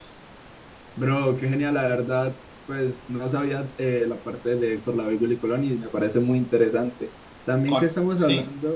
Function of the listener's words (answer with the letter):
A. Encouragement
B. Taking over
A